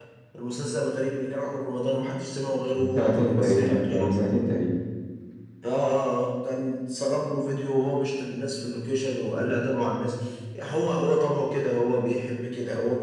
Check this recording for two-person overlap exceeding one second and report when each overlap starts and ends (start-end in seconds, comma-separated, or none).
2.7-4.1